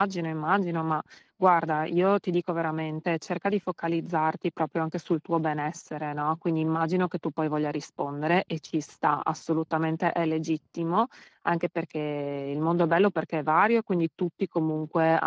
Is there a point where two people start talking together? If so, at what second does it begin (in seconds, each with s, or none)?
none